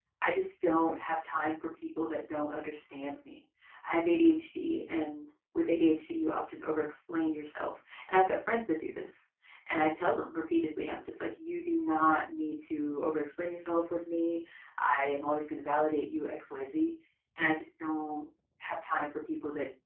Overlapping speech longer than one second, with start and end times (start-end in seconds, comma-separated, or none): none